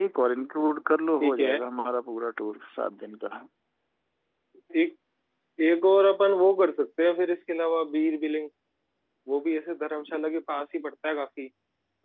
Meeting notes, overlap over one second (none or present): none